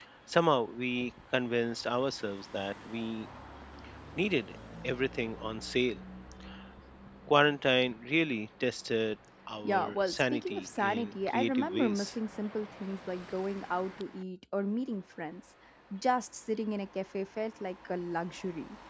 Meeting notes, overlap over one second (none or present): present